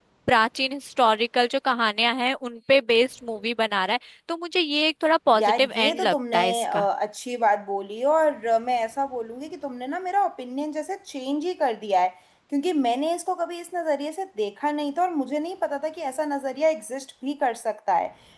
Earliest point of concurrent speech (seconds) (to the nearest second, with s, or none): 5 s